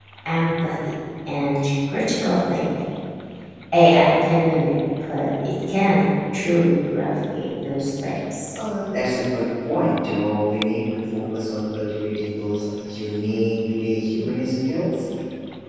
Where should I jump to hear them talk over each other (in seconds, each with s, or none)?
none